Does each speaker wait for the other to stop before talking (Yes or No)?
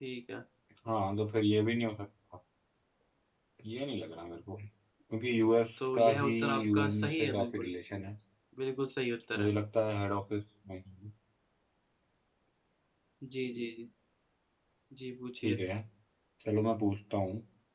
No